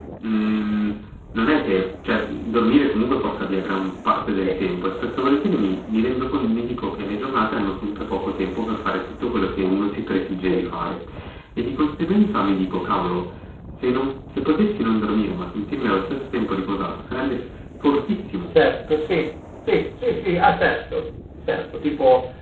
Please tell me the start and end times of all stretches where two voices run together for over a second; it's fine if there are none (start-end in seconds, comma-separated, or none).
none